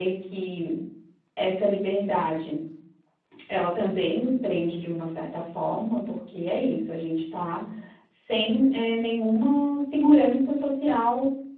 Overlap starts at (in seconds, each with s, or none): none